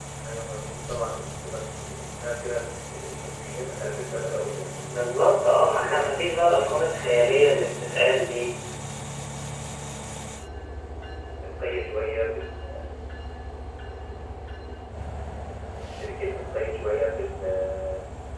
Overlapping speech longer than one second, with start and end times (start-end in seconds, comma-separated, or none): 5.6-6.9